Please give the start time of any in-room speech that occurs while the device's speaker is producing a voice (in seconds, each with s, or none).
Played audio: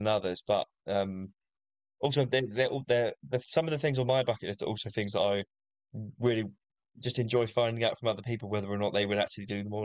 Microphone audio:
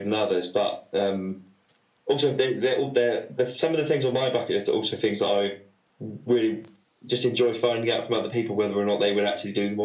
none